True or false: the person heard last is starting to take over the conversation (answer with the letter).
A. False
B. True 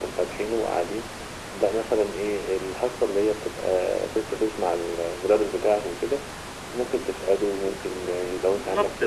B